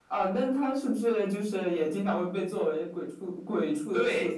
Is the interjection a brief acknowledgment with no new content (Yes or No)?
No